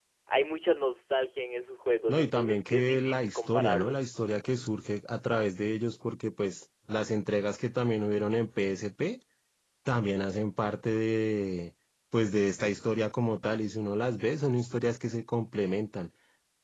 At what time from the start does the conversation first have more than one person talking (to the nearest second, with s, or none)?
2 s